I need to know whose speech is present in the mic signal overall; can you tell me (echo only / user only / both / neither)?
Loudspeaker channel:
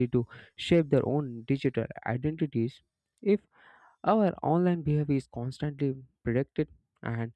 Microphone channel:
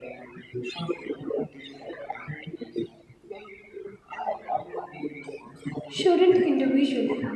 both